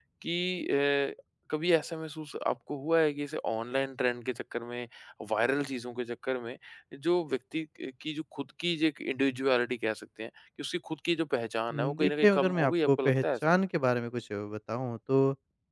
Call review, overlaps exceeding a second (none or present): present